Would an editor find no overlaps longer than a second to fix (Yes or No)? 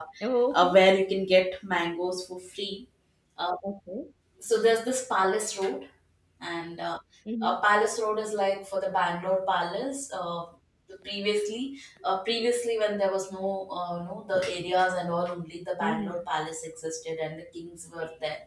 Yes